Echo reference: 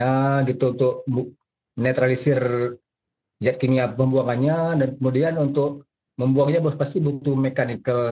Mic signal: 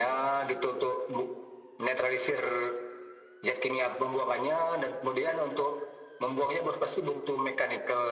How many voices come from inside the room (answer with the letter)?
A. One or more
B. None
B